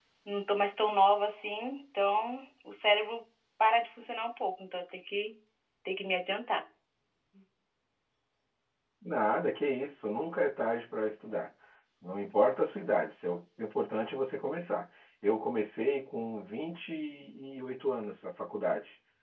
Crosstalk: none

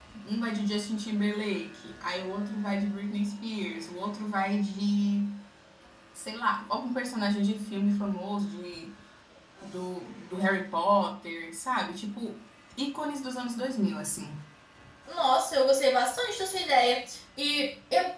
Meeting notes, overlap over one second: none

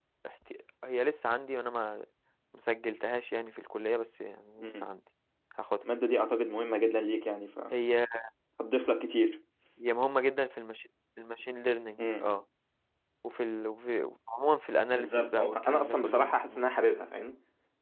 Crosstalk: present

